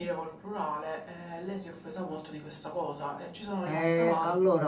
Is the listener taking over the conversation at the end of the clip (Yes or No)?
Yes